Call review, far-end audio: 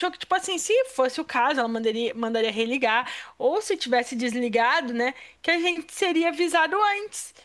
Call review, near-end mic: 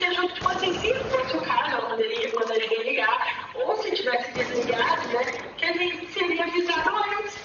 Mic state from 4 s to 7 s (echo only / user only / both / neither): echo only